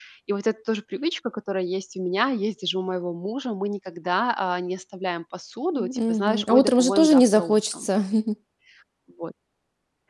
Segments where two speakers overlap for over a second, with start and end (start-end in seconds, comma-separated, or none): 5.7-7.9